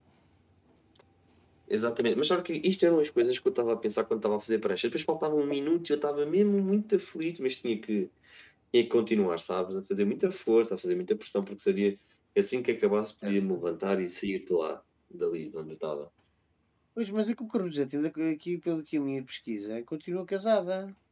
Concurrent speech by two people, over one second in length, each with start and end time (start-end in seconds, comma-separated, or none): none